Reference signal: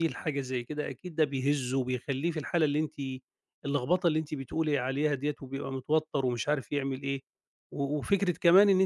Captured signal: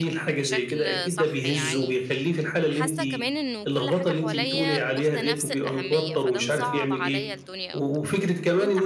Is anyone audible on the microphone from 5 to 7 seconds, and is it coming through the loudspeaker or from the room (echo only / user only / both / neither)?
both